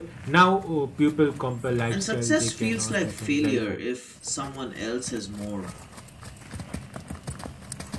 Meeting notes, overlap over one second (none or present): present